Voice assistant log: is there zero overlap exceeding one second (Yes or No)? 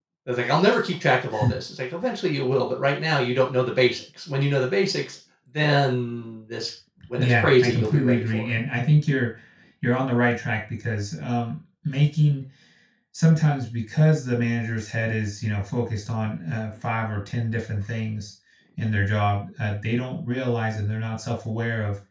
No